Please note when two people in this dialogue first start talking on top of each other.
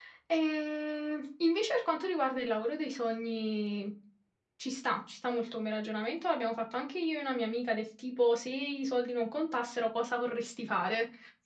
none

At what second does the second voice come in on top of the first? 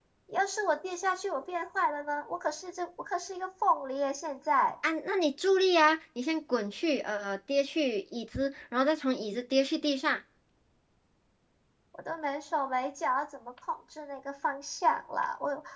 none

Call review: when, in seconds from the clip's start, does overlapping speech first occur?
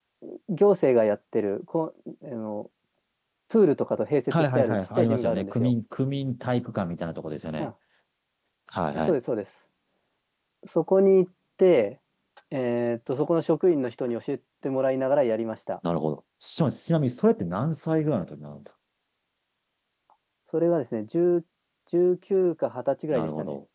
4 s

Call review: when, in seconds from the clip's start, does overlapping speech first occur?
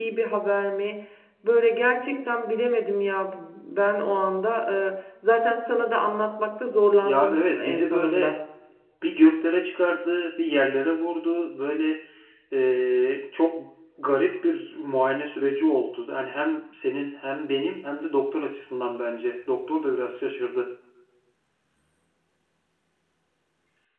7 s

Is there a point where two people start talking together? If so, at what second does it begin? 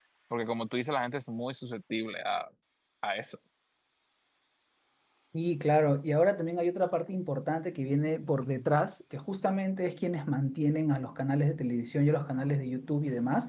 none

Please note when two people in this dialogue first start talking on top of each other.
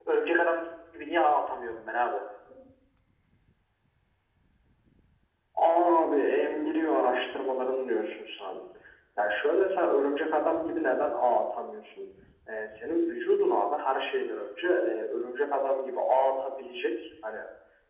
none

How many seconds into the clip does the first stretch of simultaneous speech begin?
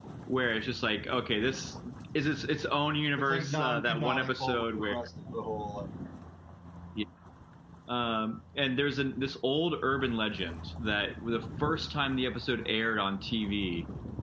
3 s

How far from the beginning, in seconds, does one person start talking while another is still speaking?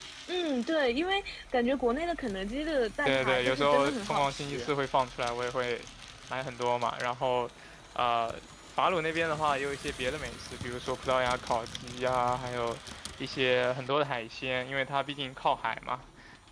3 s

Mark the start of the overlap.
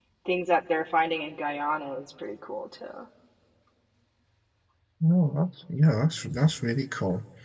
none

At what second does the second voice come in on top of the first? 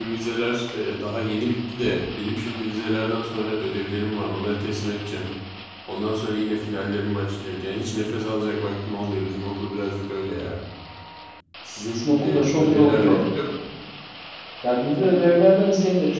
12 s

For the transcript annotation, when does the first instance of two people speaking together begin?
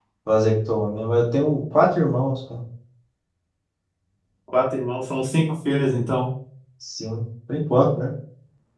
none

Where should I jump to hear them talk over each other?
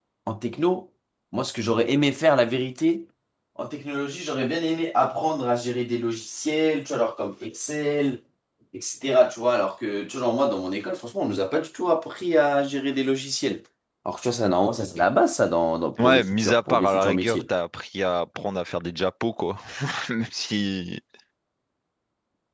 16 s

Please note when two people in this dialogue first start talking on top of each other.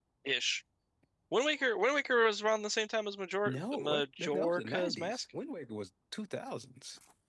3 s

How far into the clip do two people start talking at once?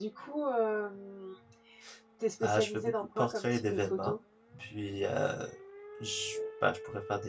2 s

